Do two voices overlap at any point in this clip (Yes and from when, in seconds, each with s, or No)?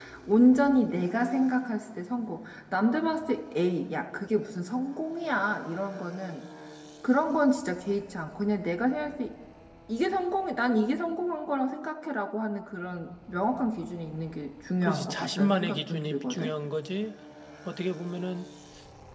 Yes, from 14.8 s